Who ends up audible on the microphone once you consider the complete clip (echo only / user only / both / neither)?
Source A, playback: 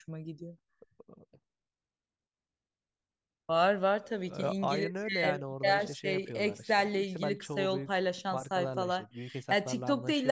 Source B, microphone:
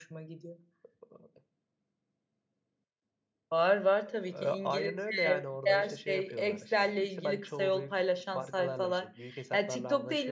echo only